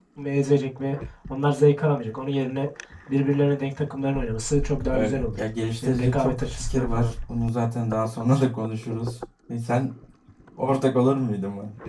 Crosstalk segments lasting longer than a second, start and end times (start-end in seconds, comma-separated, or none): 5.8-7.1